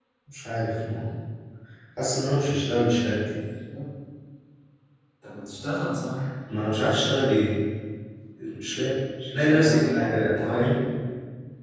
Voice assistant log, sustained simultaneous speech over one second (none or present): present